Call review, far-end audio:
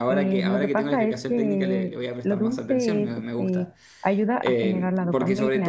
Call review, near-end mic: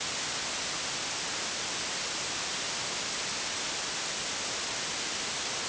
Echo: none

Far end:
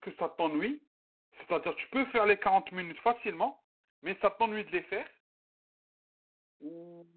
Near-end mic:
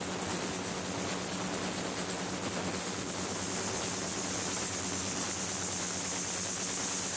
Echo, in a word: none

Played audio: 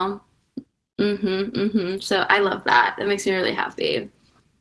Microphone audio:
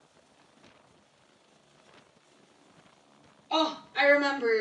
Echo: none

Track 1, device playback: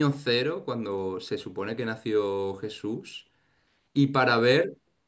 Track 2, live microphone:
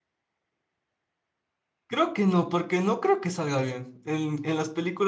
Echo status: none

